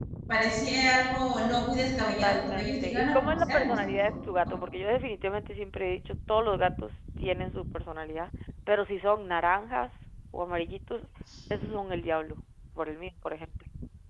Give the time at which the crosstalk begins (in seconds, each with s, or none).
2.0 s